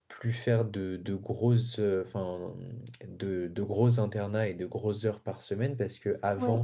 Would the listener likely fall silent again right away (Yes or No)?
Yes